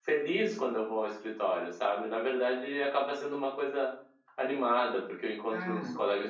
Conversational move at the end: listening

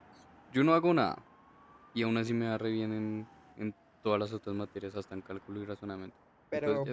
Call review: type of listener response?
taking over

